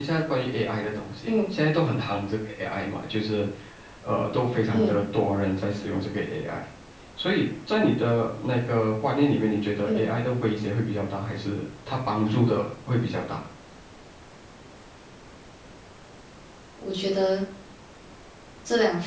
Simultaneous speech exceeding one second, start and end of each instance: none

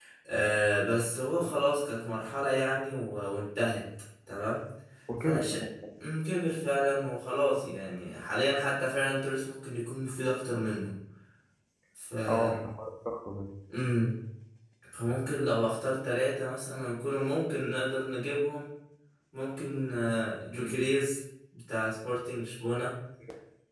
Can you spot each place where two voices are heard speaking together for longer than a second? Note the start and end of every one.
none

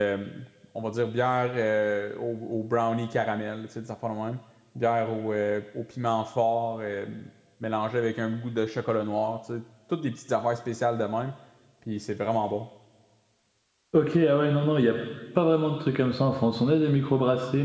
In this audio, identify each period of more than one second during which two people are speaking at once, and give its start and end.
none

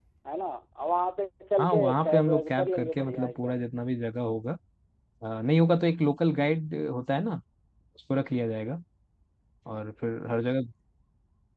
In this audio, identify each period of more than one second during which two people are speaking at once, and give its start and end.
1.6-3.6

